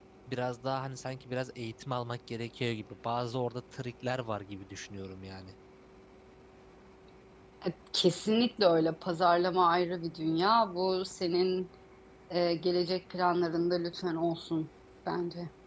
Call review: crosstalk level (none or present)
none